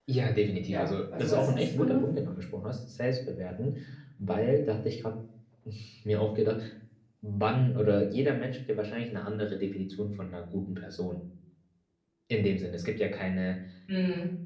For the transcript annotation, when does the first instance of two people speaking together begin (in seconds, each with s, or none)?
0.7 s